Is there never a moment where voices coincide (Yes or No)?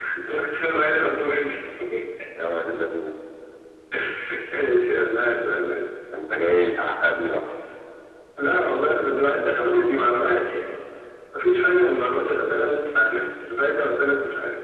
Yes